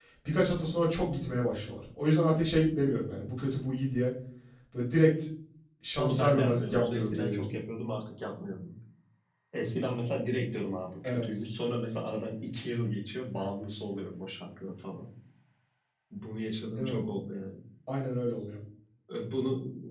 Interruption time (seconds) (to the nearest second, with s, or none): 6 s